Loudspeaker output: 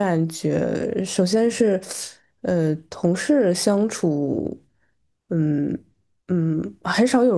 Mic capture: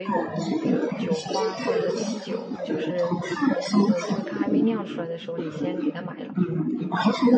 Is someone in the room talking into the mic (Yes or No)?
Yes